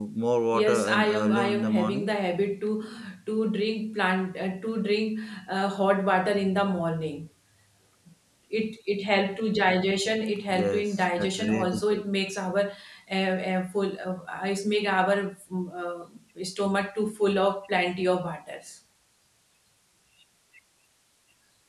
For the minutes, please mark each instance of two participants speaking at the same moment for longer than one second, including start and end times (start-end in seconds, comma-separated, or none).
0.6-2.1, 10.5-12.0